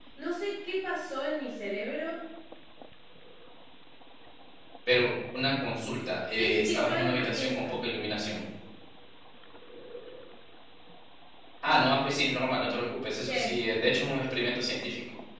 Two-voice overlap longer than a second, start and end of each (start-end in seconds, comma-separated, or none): 6.3-7.8